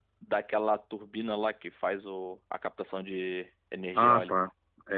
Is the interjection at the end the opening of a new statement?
Yes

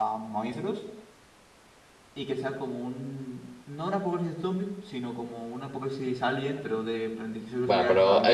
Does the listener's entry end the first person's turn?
Yes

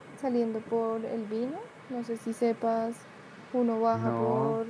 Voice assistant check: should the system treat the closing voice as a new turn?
No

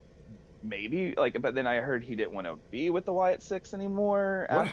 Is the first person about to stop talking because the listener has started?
Yes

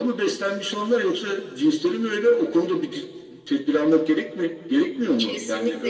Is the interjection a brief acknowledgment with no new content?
No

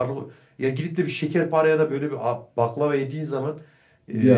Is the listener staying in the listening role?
Yes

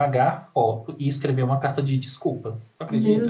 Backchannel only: No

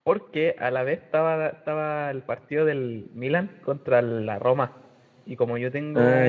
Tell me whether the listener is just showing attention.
Yes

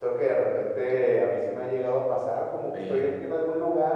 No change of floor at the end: Yes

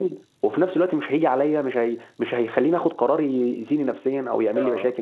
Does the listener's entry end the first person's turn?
Yes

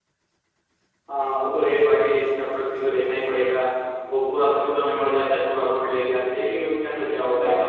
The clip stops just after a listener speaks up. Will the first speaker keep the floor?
No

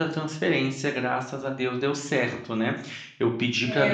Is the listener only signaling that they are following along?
No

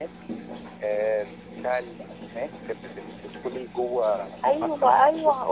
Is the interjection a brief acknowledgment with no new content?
No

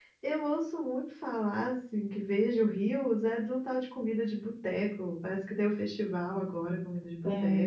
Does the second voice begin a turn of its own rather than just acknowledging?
Yes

